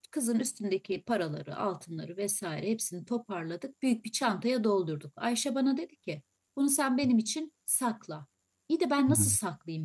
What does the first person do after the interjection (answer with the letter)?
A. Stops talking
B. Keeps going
B